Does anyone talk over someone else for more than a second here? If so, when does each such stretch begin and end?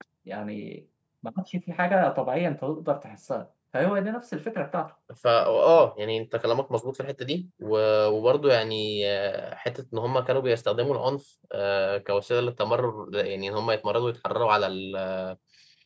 none

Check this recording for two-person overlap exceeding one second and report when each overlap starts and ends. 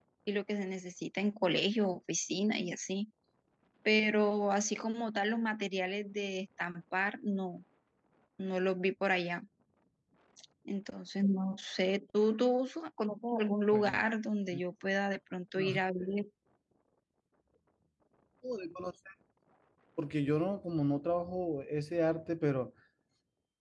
none

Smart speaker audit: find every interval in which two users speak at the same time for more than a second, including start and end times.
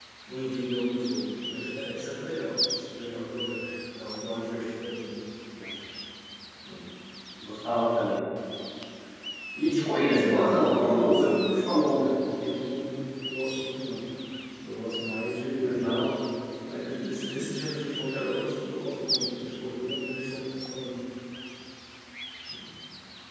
9.9-12.1

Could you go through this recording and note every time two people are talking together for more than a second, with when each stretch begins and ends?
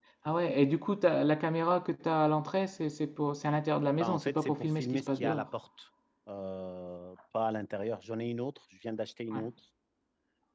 4.0-5.5

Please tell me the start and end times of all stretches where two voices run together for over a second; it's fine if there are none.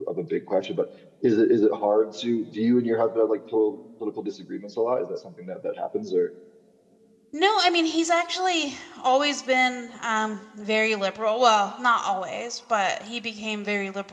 none

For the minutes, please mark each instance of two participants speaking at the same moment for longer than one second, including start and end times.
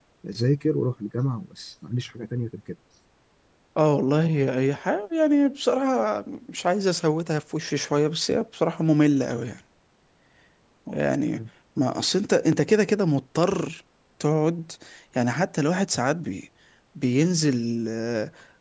none

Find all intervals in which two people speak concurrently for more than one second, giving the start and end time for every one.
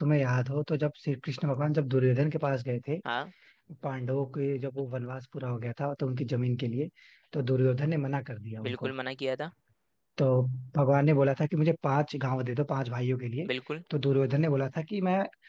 none

